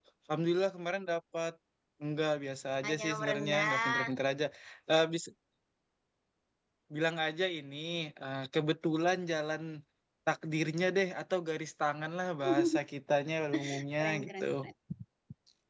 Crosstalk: present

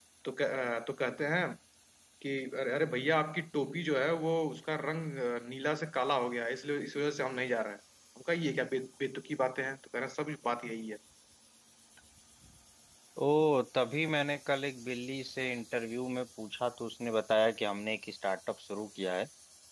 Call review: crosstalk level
none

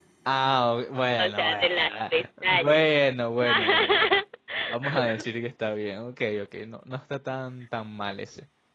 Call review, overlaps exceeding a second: present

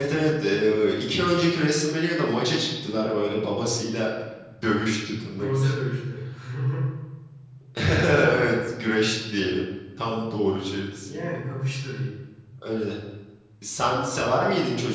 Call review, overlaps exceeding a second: none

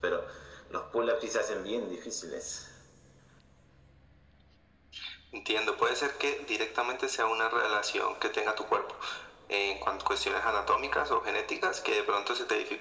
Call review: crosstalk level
none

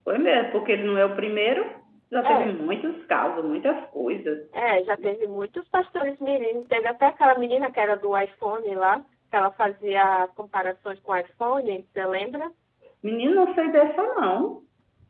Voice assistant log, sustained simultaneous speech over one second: none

